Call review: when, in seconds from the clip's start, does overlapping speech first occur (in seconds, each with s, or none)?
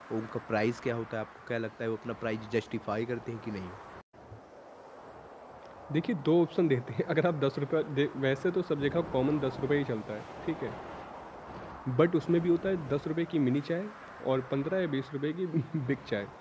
none